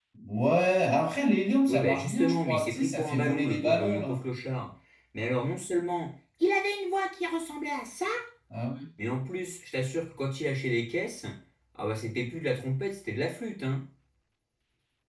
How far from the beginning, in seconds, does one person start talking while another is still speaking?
1.7 s

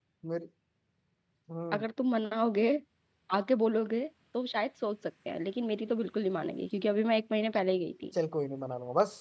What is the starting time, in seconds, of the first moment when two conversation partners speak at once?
none

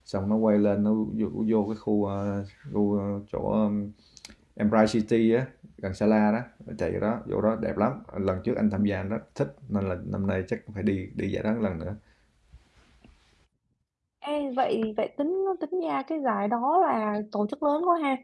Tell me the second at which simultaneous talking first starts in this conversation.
none

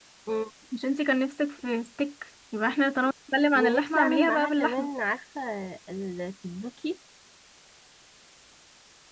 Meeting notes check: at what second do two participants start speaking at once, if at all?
3.5 s

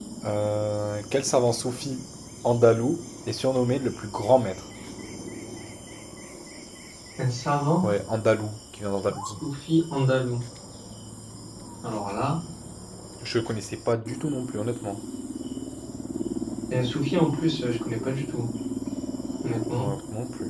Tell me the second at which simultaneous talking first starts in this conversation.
none

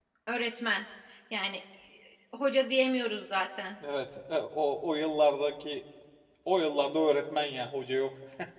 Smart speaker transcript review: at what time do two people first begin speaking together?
none

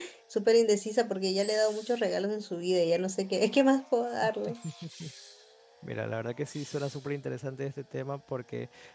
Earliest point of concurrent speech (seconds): none

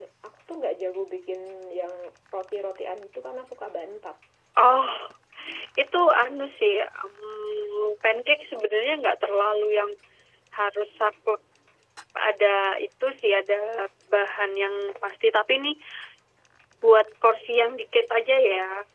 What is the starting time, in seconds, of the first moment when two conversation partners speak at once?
none

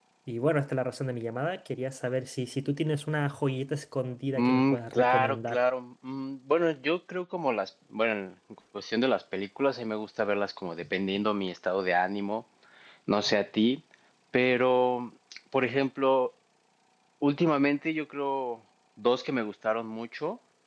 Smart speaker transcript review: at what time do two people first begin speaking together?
4.4 s

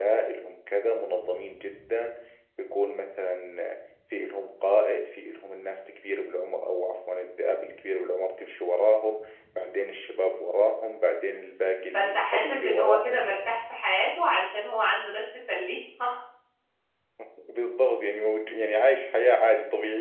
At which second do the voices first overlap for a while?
11.9 s

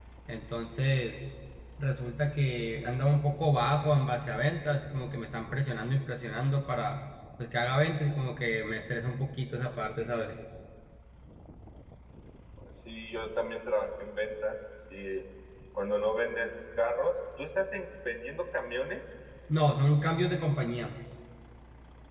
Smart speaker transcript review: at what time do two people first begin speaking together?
none

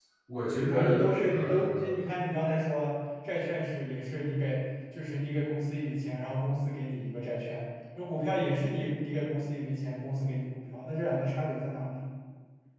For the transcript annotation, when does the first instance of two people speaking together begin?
0.7 s

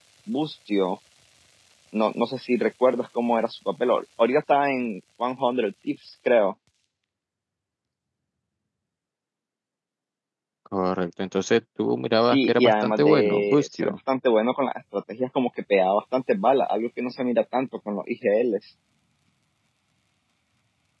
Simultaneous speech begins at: 12.2 s

